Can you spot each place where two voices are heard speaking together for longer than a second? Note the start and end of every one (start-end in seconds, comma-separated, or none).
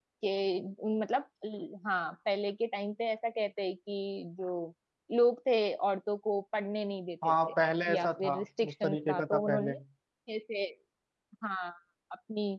7.9-9.7